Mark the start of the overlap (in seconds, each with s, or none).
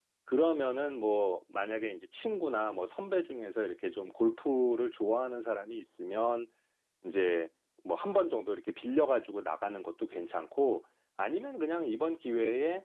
none